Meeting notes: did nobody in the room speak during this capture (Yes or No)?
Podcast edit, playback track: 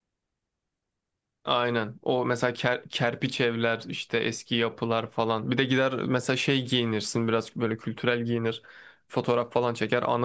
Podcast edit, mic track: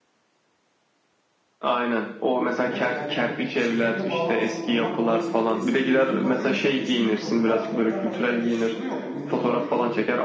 No